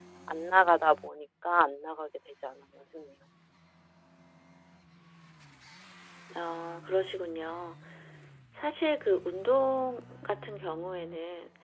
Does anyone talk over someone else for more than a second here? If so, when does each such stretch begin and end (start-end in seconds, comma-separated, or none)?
none